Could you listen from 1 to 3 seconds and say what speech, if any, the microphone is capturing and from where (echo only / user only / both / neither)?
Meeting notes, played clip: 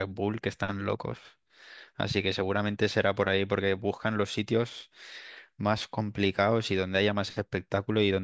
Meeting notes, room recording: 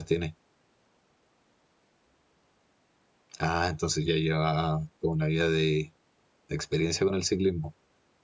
neither